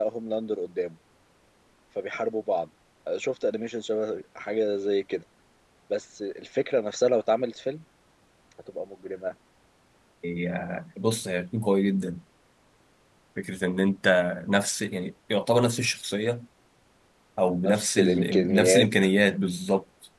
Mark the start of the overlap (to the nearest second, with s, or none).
18 s